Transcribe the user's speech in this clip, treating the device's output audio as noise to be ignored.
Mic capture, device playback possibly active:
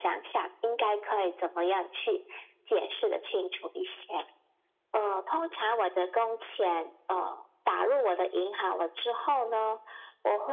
none

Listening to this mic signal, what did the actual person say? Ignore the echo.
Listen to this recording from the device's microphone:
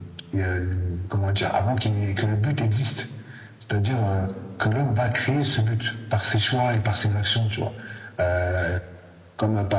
none

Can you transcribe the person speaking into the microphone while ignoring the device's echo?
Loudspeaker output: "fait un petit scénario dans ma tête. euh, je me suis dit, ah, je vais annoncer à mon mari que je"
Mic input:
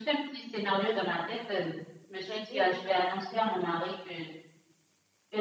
Des années, oui, hein.

